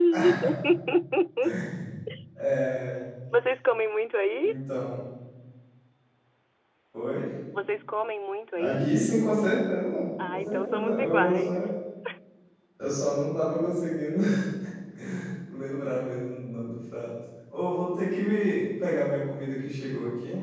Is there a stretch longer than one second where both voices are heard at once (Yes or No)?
Yes